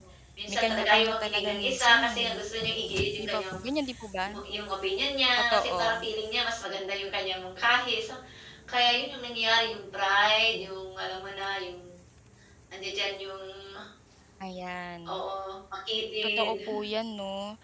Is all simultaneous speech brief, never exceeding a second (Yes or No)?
No